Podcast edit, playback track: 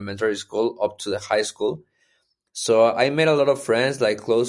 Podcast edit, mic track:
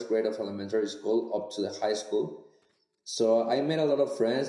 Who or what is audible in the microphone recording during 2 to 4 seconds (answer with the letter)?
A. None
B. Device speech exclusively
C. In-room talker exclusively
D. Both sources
B